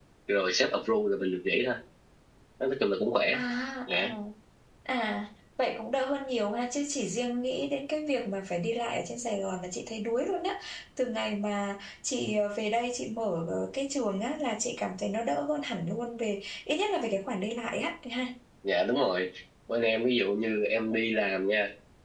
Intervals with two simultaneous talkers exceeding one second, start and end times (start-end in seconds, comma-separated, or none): none